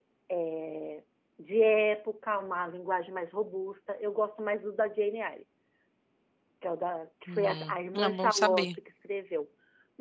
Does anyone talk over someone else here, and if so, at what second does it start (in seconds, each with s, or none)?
7.3 s